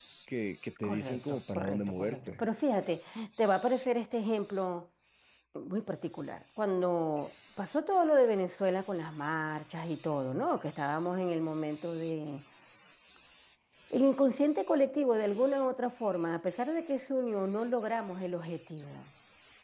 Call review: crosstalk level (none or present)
present